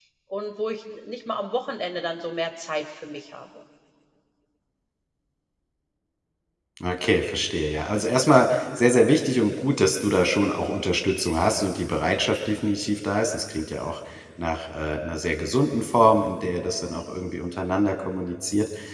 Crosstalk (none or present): none